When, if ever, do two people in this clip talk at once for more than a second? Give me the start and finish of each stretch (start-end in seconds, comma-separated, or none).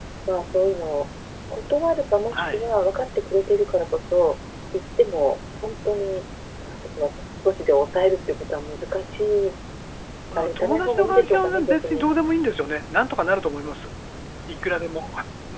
10.4-12.0